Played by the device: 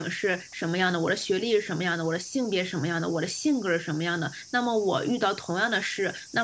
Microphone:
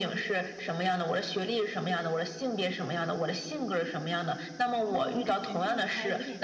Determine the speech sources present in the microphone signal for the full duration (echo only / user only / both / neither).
both